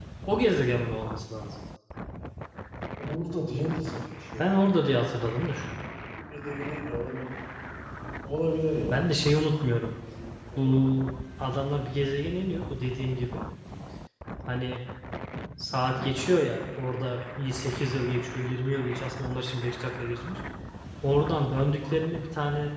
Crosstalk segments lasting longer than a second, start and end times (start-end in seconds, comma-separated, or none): none